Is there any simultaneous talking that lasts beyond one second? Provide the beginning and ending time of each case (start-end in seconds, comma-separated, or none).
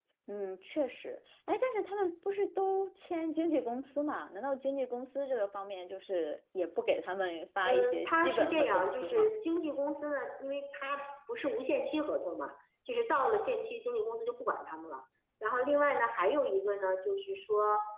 7.7-9.3